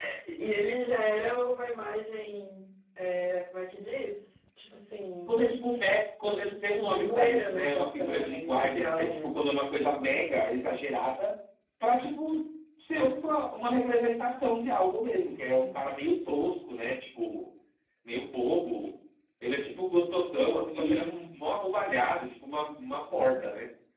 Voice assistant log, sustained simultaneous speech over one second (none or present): present